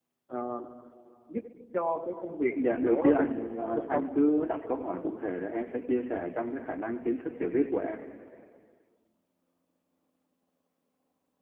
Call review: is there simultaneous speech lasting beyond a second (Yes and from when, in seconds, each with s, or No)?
Yes, from 2.6 s